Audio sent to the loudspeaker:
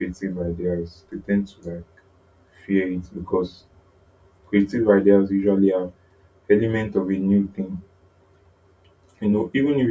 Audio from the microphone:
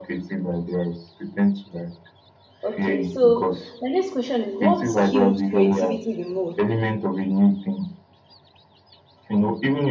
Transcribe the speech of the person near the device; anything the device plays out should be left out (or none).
Okay, so my next question is what skewed creativity the most?